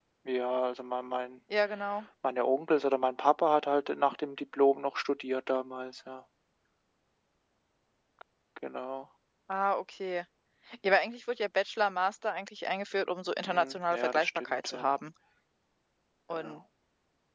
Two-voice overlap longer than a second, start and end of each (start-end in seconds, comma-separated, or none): 13.4-14.9